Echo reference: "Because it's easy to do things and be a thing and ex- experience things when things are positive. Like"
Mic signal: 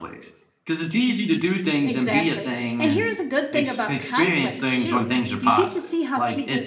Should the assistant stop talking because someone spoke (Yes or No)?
Yes